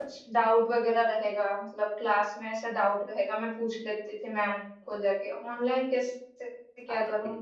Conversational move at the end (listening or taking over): listening